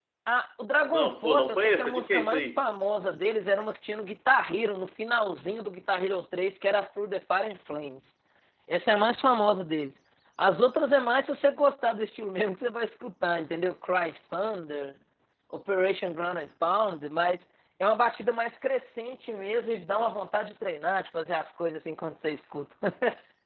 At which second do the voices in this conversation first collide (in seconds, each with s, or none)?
0.9 s